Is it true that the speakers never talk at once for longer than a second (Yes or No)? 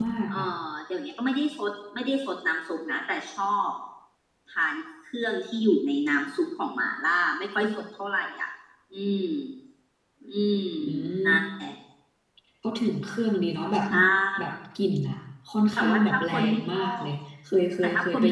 No